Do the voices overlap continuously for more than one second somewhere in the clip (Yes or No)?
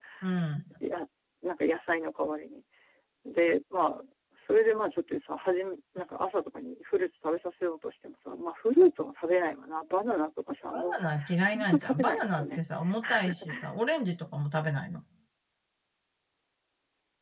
Yes